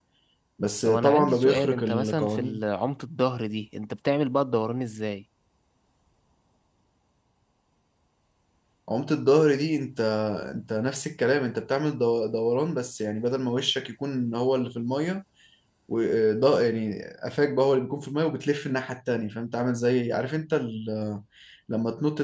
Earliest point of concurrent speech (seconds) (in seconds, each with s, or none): 0.8 s